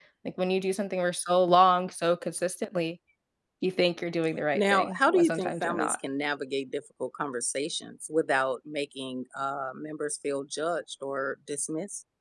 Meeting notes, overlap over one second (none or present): present